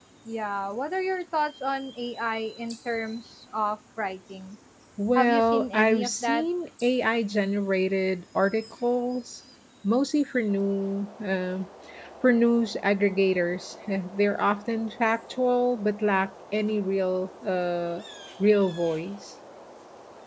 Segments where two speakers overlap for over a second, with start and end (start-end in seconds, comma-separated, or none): 5.2-6.4